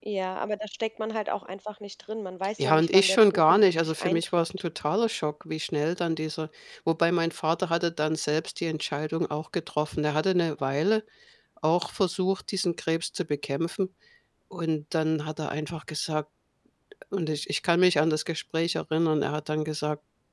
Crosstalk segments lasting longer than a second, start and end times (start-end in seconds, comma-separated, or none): 2.6-4.6